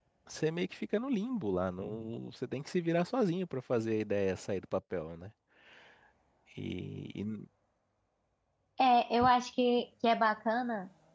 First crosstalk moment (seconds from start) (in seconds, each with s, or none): none